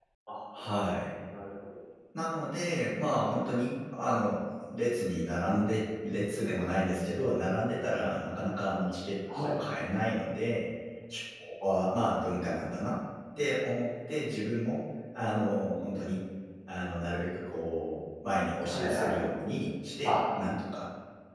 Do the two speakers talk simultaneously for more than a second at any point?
No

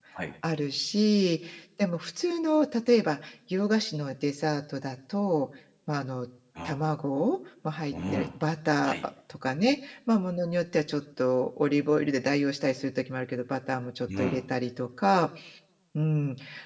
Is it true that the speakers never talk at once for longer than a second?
Yes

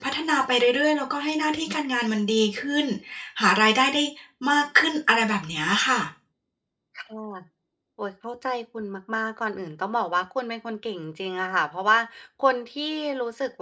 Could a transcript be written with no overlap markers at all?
Yes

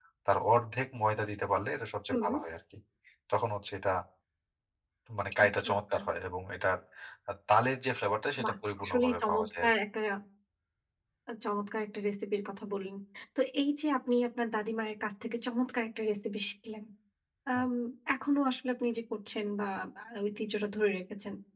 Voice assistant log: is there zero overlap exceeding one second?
No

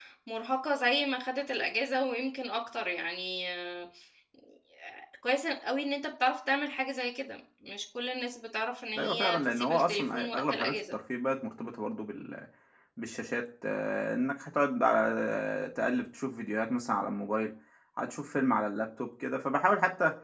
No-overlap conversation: No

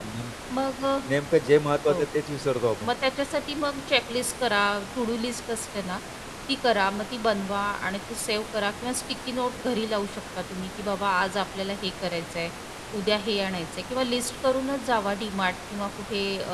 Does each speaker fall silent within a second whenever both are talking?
Yes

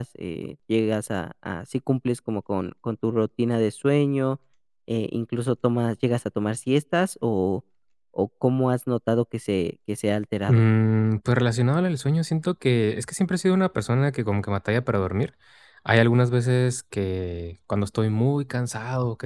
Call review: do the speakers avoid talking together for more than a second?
Yes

